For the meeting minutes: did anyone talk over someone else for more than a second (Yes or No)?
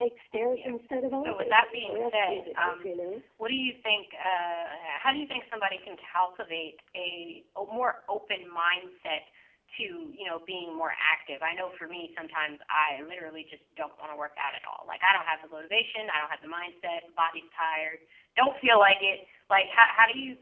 Yes